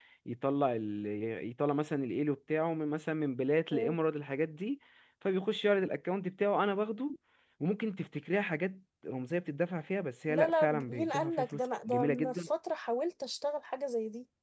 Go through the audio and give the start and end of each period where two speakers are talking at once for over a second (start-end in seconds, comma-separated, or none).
10.3-12.5